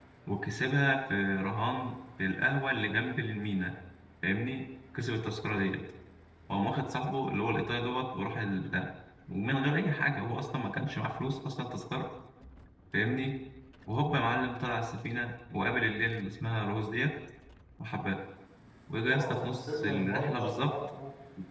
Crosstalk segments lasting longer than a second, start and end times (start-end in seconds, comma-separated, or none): 19.1-20.7